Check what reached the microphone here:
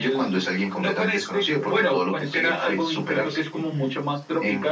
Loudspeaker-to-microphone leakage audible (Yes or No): Yes